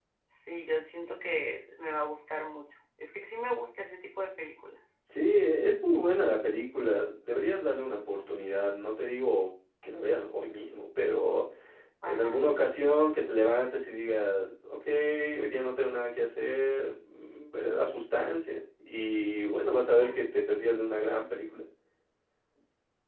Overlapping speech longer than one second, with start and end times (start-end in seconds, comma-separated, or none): none